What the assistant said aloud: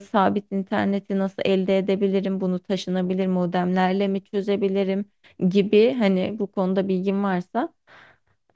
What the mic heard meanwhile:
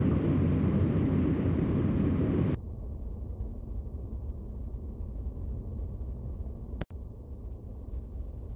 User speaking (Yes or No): No